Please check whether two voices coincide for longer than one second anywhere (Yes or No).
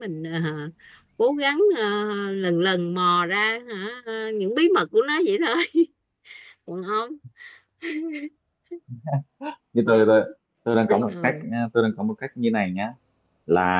No